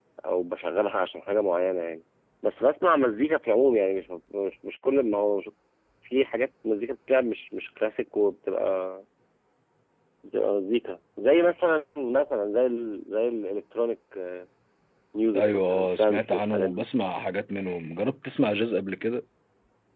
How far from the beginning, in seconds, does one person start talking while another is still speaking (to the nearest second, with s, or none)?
15 s